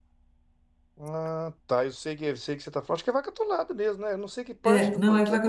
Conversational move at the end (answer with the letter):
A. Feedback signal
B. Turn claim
B